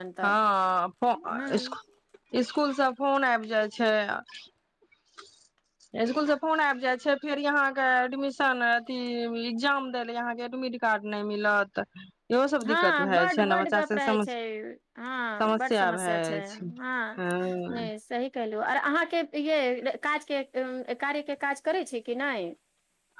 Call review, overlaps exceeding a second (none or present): present